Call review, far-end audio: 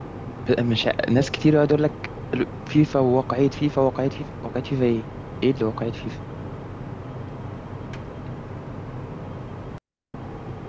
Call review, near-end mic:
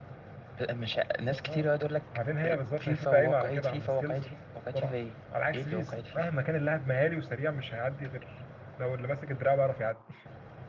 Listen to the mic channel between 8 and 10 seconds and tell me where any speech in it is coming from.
user only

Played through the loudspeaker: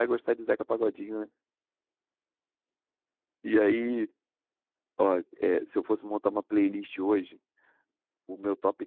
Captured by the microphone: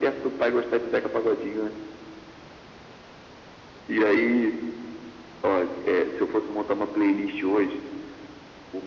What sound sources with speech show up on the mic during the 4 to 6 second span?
echo only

